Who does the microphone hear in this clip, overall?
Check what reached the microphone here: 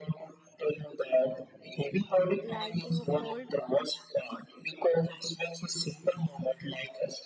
both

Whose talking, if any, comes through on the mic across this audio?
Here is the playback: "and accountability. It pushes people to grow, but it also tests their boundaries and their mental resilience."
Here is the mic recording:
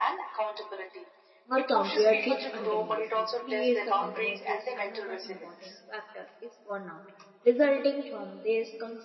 both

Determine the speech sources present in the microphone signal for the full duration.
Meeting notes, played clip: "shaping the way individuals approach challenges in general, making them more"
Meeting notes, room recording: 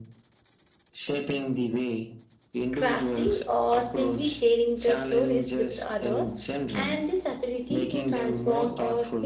both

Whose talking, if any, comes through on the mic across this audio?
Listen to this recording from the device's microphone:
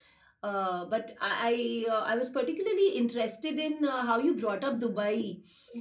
echo only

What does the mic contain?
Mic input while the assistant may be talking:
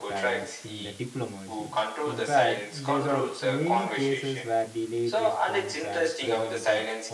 both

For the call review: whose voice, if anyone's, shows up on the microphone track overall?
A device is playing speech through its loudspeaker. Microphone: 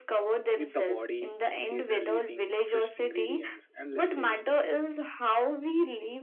both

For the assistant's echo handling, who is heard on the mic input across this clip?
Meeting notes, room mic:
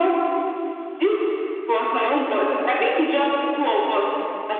echo only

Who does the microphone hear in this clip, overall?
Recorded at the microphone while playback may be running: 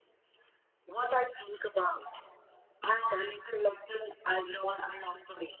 echo only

